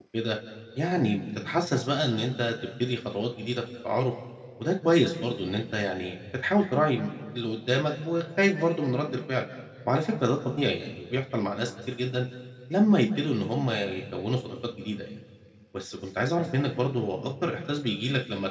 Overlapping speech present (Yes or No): No